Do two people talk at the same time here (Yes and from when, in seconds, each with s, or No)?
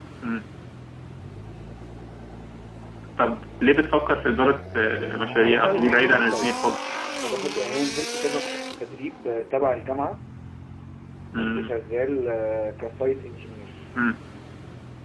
Yes, from 5.4 s